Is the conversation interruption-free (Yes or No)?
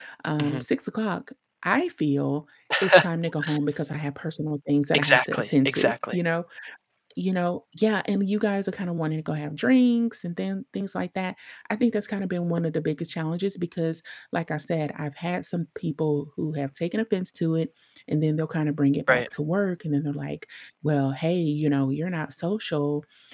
No